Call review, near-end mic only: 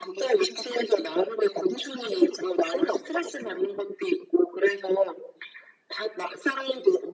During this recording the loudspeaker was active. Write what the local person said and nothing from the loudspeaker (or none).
none